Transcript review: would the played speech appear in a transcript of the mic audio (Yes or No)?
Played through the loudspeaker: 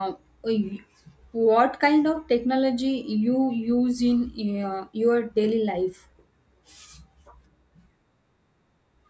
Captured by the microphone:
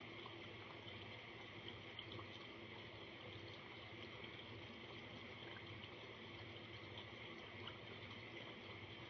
No